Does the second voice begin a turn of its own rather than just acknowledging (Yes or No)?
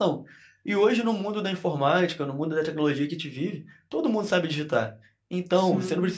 No